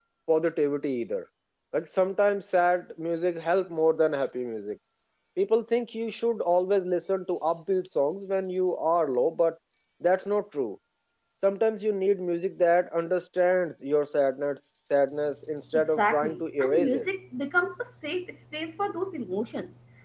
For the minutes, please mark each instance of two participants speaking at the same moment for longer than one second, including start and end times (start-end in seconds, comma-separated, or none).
15.9-17.1